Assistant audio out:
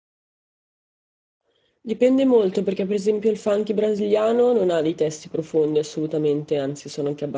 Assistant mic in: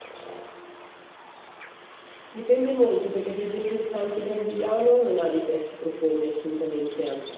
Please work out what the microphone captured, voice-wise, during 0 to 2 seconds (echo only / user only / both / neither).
neither